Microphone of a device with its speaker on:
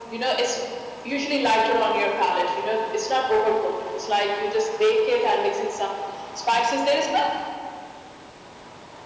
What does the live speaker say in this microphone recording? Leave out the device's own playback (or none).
none